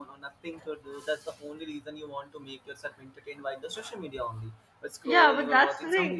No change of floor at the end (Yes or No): No